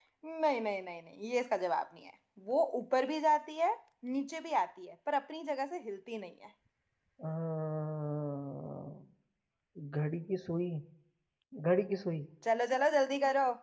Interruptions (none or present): none